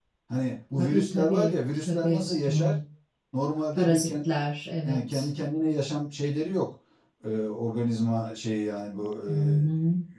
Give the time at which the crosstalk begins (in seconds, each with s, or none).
0.8 s